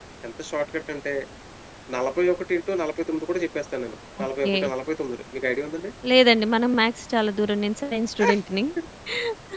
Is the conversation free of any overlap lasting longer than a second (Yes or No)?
Yes